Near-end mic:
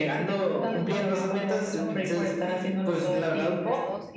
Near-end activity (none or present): present